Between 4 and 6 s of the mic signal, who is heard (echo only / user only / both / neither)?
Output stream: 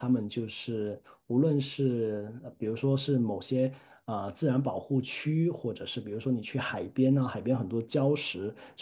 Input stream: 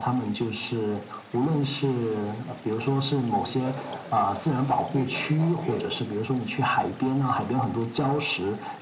both